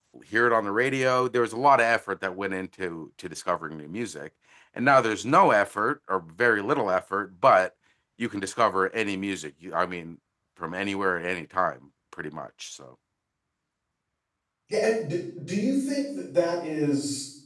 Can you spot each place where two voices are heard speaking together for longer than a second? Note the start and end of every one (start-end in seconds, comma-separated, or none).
none